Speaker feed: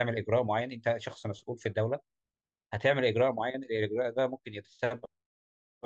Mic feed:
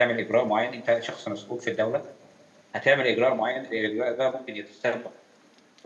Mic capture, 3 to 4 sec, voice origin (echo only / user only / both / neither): echo only